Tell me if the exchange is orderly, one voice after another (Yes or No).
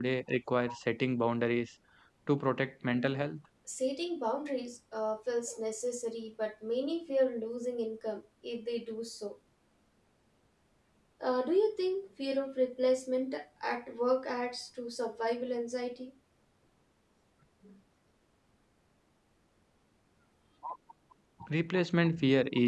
Yes